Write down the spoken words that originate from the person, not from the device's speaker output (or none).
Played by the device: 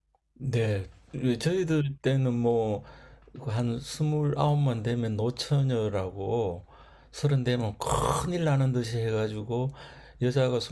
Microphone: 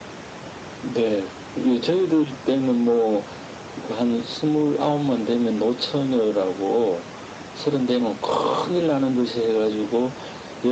none